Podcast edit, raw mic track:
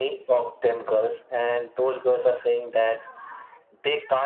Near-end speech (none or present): none